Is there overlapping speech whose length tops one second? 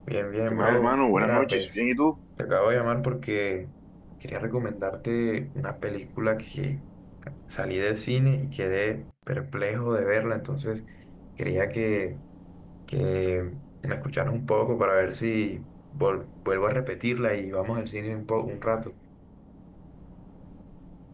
Yes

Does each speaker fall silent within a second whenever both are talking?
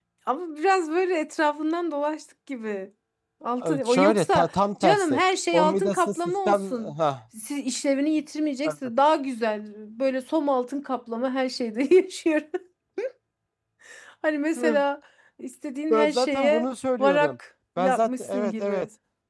No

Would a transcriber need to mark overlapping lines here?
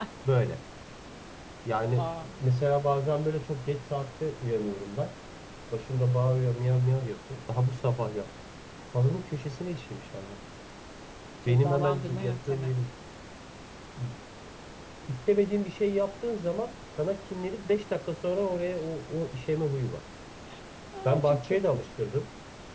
Yes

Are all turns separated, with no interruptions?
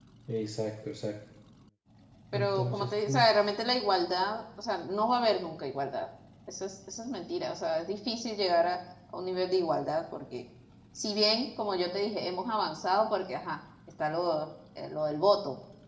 No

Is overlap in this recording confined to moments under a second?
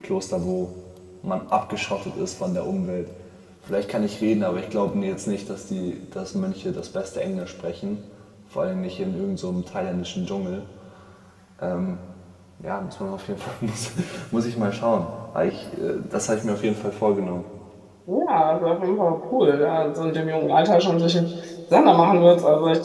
Yes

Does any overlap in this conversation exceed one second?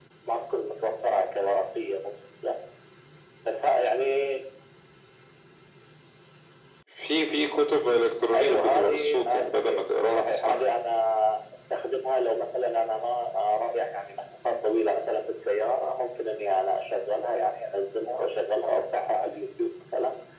Yes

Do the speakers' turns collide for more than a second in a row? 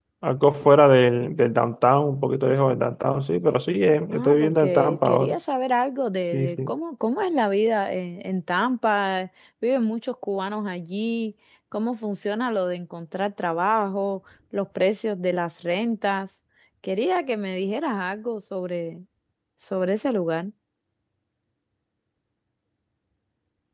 Yes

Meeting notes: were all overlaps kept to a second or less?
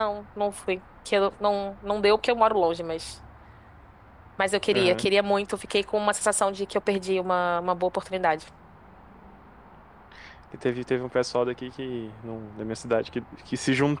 Yes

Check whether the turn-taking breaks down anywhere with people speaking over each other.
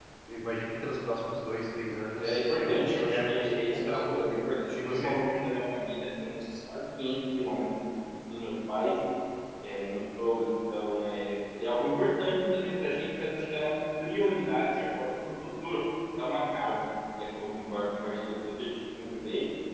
Yes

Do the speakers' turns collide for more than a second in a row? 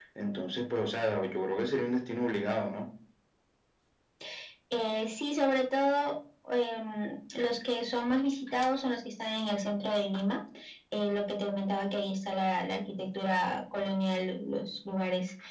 No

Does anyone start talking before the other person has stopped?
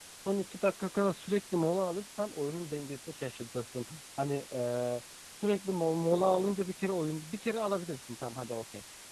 No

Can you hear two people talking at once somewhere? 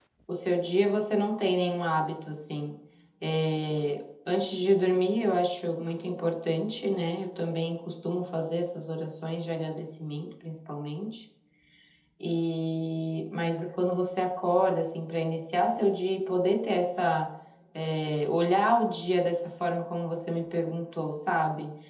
No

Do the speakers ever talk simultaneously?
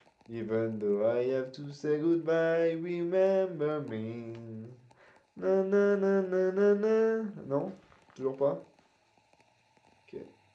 No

